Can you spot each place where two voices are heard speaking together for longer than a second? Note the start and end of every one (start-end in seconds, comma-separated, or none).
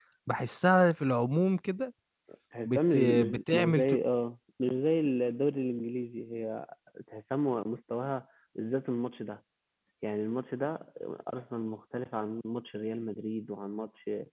2.6-3.9